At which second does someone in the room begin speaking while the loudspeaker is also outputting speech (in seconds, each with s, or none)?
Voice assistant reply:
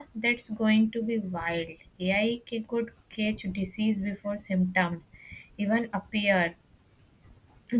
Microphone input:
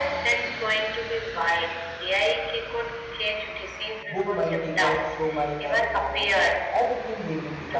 4.1 s